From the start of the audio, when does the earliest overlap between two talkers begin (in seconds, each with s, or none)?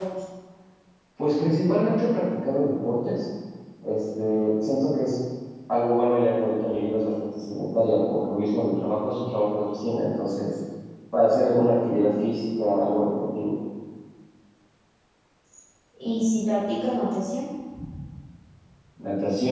none